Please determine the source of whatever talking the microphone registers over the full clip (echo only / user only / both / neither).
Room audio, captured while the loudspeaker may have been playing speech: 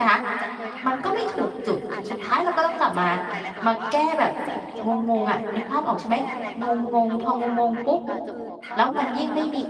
both